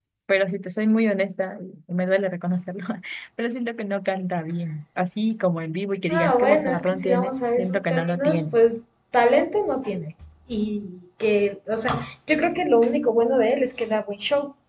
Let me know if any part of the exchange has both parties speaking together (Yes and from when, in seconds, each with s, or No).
Yes, from 6.1 s